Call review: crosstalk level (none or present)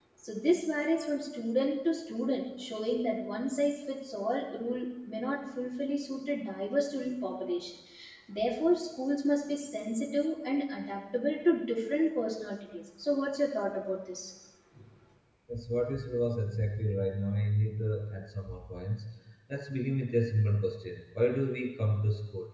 none